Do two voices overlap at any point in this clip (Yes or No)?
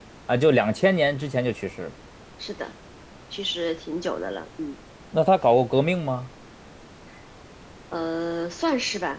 No